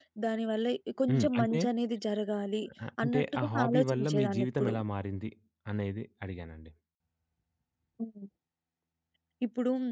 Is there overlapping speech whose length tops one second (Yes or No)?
Yes